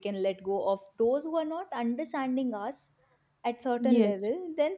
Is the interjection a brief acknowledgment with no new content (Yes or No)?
Yes